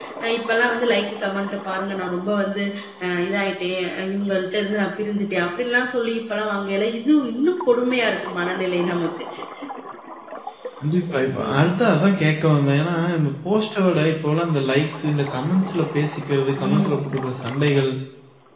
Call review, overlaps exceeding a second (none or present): none